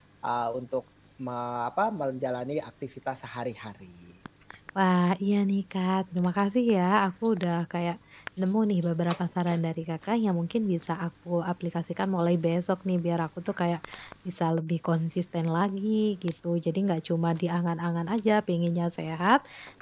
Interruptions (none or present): none